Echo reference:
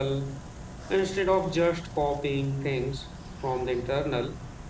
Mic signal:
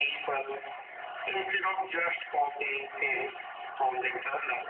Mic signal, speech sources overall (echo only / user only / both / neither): echo only